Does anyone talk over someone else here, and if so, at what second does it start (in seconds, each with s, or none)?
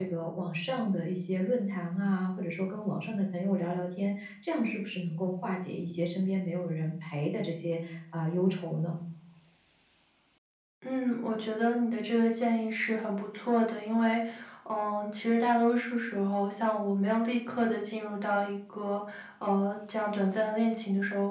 none